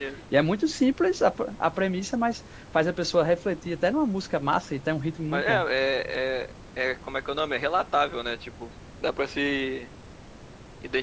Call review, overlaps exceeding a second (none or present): none